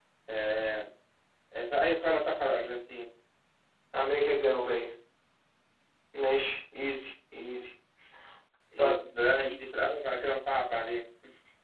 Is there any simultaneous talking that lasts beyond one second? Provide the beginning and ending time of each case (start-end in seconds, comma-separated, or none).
none